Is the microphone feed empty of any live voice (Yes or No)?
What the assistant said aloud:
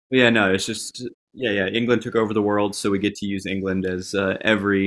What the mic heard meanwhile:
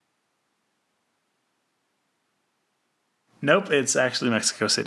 No